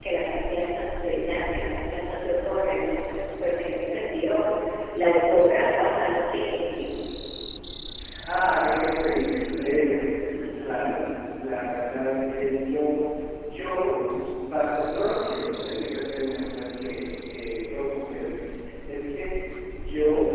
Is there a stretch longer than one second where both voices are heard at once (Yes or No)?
No